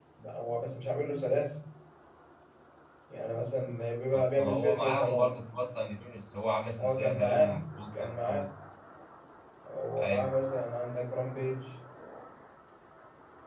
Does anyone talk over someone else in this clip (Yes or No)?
Yes